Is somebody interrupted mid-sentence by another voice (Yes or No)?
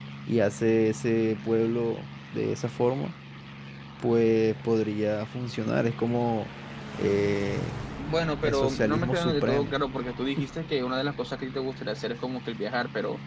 Yes